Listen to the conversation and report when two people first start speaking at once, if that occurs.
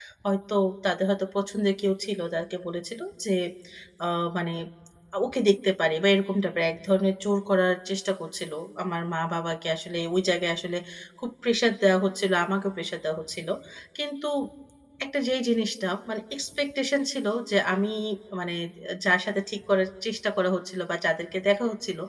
none

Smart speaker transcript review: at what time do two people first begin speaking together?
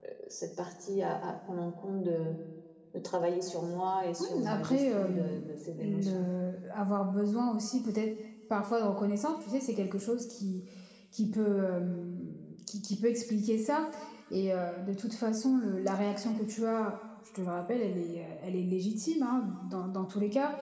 4.2 s

